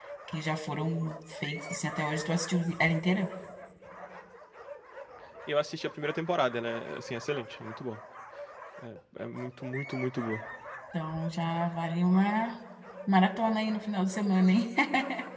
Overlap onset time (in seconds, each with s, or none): none